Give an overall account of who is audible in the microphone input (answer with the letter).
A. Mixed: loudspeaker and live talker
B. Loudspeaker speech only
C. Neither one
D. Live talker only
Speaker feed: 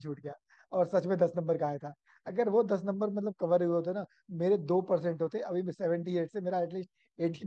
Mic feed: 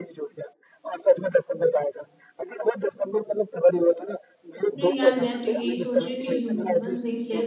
A